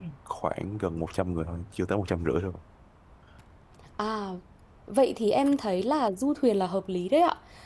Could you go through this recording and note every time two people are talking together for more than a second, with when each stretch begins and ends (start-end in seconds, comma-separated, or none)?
none